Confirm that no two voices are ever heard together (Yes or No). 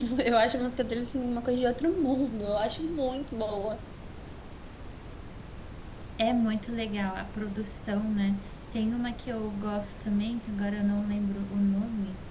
Yes